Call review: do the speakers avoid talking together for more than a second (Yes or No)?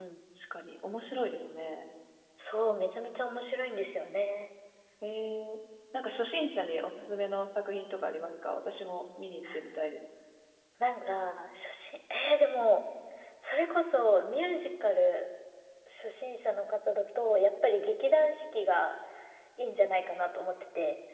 Yes